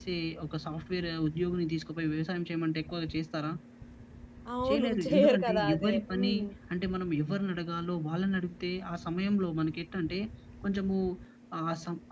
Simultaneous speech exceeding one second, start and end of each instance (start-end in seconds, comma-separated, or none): 4.7-6.3